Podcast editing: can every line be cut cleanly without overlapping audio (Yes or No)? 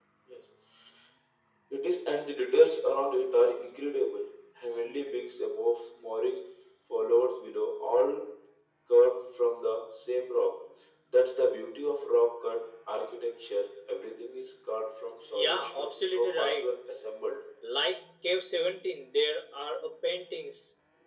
No